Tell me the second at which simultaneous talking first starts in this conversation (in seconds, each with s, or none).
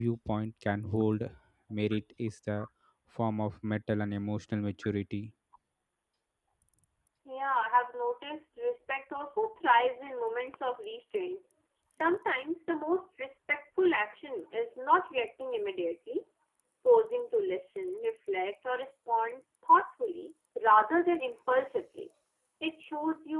none